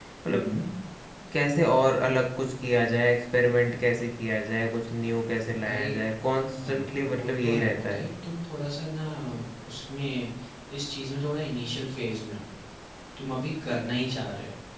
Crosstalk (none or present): present